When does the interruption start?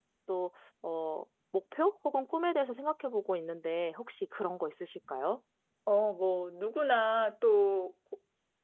none

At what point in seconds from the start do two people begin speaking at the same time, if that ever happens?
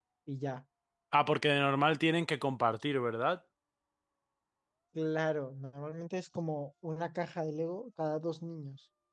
none

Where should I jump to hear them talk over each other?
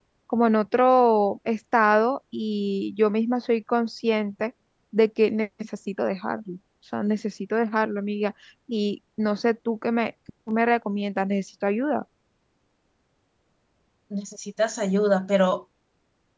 none

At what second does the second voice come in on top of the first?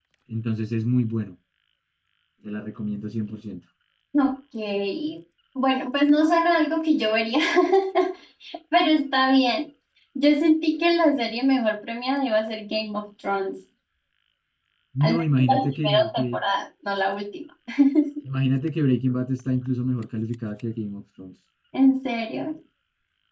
15.0 s

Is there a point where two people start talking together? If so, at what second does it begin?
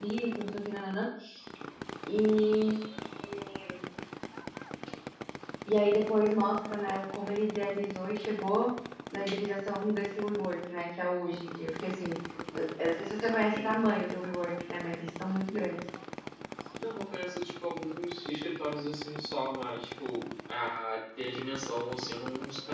12.5 s

